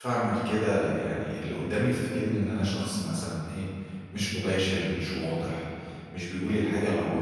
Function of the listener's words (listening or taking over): listening